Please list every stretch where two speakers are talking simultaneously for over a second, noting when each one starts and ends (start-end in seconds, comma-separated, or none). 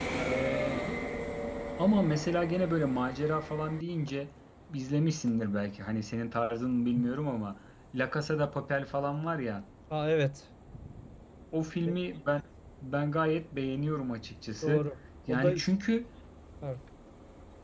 none